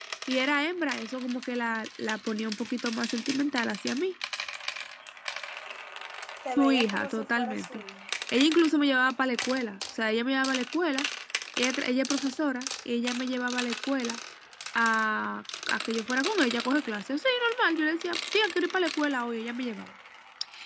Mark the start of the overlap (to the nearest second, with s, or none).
7 s